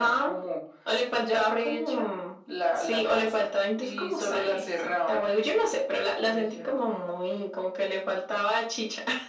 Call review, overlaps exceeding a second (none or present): present